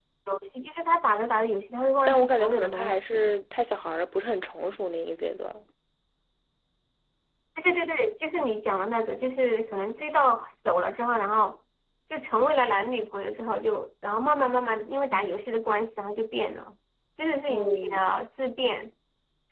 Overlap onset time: 2.0 s

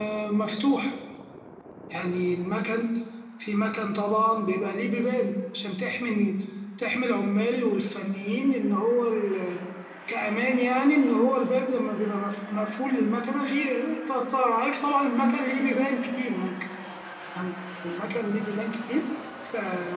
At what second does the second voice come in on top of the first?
none

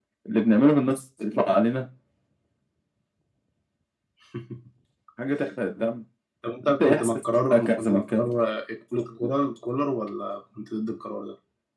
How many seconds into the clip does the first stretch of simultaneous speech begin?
6.7 s

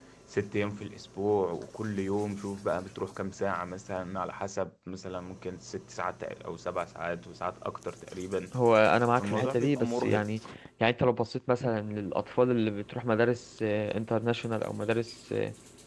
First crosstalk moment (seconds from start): 9.2 s

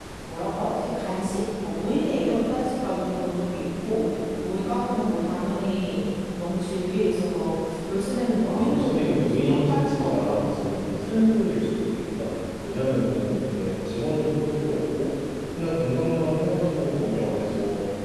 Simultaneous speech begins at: 8.4 s

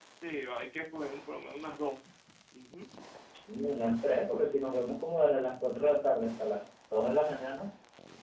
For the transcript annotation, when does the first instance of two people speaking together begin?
none

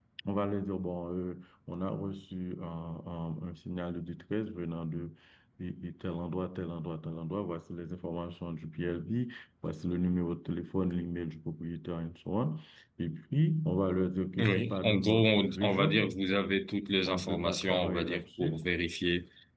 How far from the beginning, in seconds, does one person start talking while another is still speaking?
14.4 s

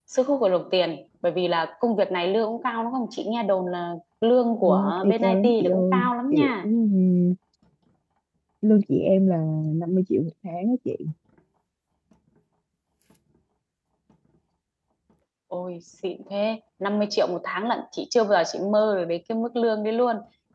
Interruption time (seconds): 4.6 s

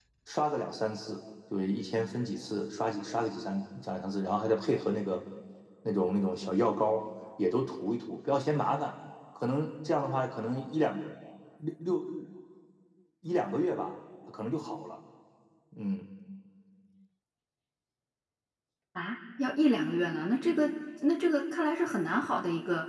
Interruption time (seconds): none

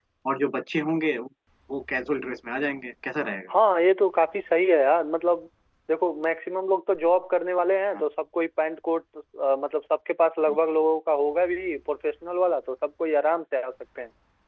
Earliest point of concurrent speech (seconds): none

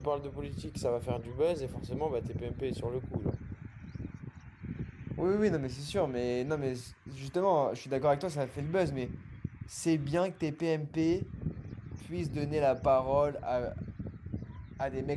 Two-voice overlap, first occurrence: none

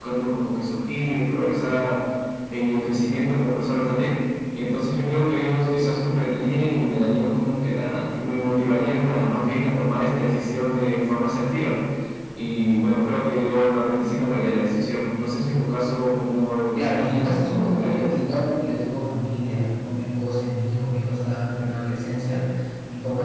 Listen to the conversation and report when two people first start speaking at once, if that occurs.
16.7 s

